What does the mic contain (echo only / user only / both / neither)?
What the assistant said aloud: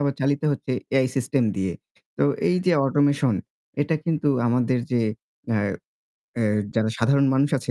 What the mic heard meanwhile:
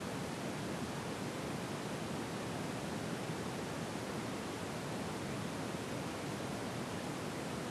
neither